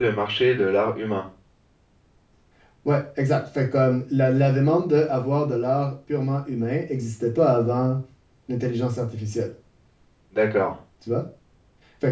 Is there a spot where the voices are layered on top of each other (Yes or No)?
No